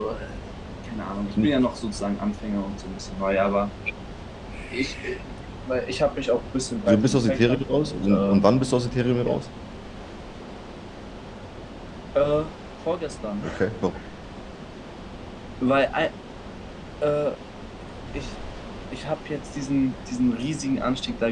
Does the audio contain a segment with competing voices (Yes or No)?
Yes